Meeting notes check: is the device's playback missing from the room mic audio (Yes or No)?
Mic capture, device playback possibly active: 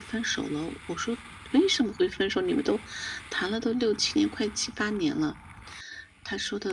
No